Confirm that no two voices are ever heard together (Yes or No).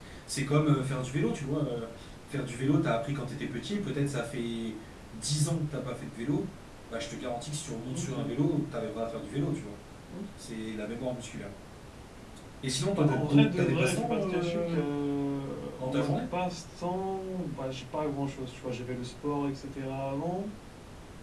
No